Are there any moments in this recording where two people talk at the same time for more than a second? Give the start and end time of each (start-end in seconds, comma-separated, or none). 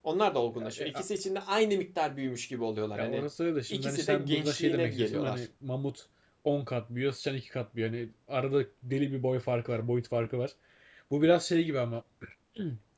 3.7-5.5